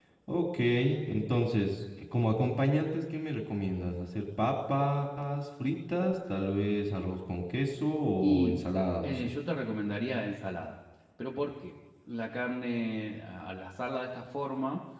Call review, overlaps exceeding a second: none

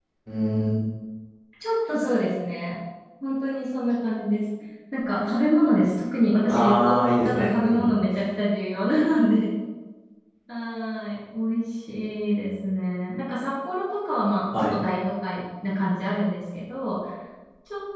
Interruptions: present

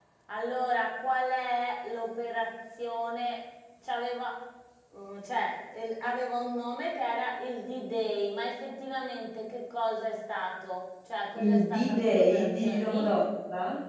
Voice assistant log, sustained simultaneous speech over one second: present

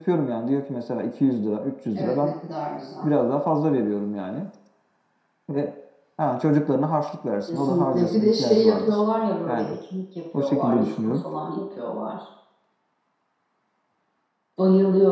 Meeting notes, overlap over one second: present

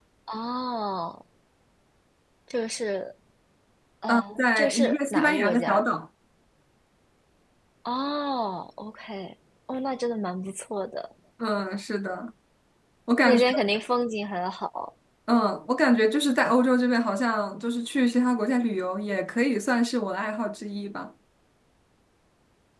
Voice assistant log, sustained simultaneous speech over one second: present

